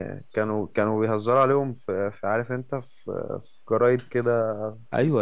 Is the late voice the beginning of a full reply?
Yes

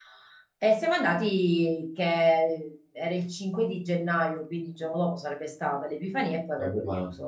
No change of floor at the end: Yes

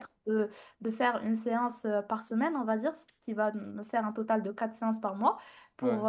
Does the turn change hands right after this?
No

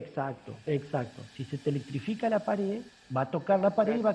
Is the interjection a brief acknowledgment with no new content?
Yes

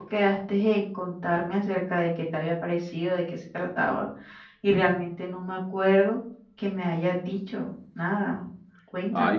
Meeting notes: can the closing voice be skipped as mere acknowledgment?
No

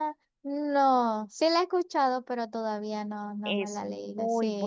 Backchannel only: No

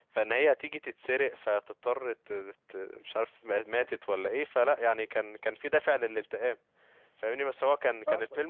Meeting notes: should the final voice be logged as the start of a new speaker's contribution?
No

